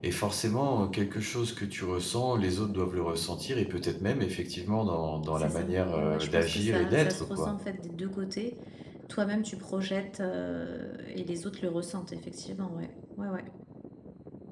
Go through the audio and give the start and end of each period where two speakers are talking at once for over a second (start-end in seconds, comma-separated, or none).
5.3-7.5